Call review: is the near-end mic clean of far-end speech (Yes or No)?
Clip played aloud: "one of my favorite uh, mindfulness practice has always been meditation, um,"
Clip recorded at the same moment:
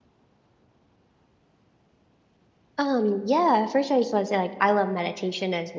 Yes